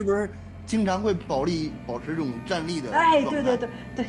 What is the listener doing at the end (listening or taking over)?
taking over